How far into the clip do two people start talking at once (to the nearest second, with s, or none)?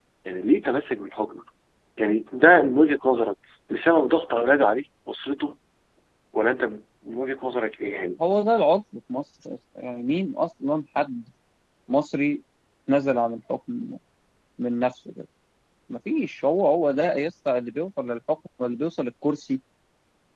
none